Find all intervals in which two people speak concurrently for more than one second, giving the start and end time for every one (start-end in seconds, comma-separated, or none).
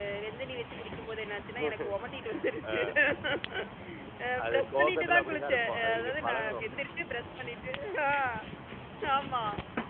4.4-6.6